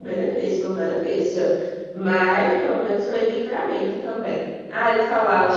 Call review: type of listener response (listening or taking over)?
listening